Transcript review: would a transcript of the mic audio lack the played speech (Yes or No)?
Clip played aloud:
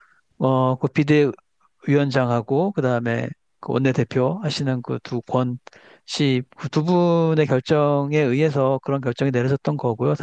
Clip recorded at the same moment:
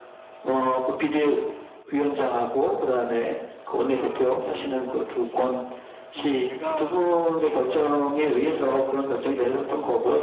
No